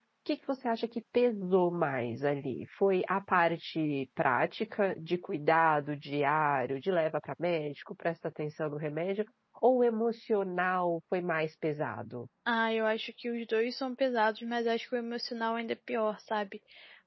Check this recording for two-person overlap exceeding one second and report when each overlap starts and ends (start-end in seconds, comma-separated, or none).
none